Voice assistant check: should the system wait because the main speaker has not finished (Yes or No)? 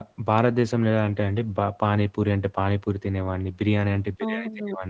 No